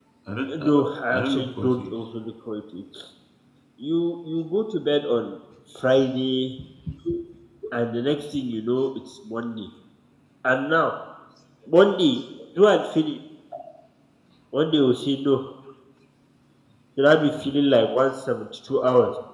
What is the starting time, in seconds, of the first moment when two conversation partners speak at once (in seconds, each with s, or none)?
0.6 s